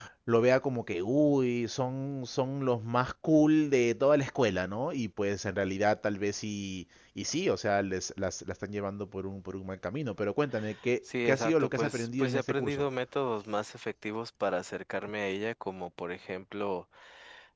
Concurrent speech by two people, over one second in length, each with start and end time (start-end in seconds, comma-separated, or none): 11.2-12.8